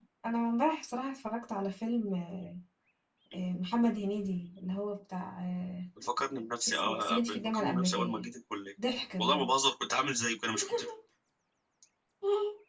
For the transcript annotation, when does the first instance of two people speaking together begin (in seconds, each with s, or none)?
6.7 s